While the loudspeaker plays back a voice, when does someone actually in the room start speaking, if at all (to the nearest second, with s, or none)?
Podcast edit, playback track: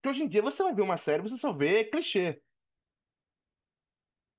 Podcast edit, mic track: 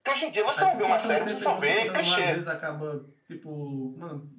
1 s